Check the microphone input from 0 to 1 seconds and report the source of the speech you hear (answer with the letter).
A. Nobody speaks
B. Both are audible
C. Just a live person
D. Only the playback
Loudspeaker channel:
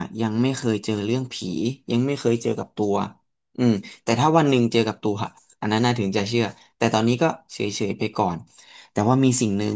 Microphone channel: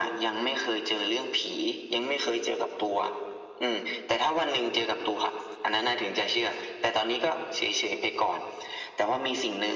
D